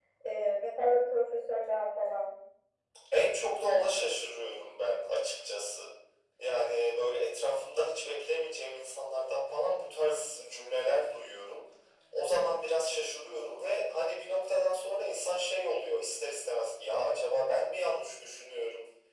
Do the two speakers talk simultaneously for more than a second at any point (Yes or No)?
No